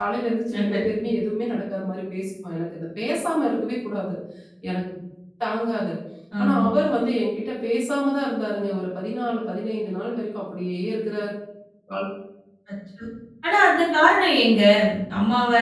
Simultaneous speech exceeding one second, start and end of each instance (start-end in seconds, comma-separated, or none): none